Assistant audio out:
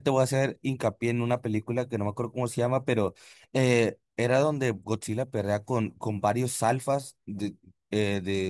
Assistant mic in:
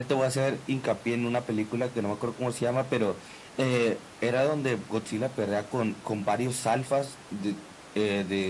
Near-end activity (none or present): none